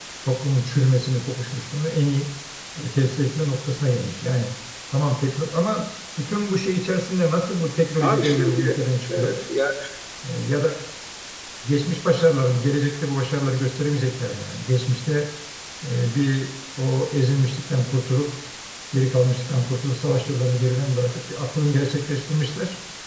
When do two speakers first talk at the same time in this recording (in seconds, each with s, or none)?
8.0 s